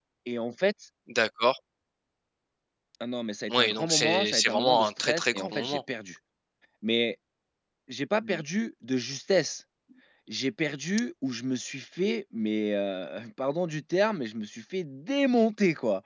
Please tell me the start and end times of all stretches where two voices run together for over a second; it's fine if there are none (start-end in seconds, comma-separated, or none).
3.6-5.8